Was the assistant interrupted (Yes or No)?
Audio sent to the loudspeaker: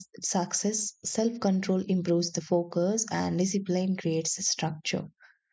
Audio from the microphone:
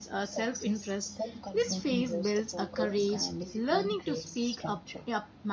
Yes